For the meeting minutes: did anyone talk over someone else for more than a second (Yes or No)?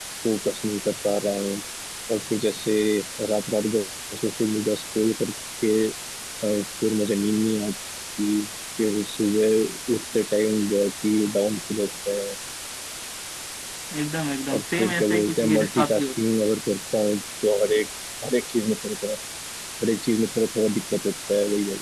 Yes